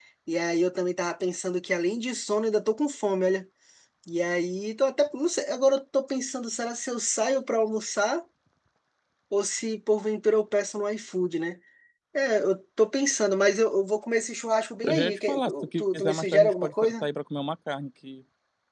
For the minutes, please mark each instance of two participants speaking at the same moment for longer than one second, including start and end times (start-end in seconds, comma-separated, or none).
14.8-17.1